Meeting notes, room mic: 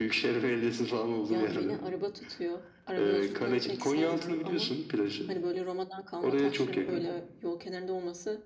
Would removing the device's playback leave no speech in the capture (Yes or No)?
No